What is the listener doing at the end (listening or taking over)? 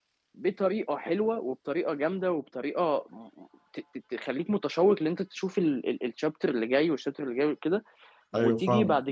listening